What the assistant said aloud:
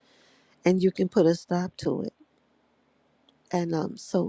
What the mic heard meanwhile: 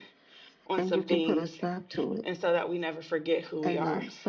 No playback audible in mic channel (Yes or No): No